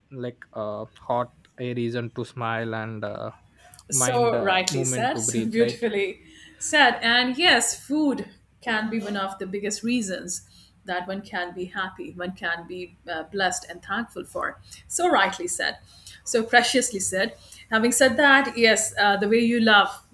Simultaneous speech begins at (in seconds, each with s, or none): 3.9 s